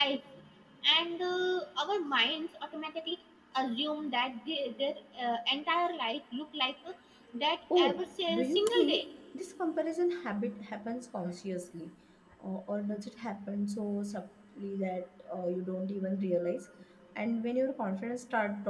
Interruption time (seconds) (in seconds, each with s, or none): 7.8 s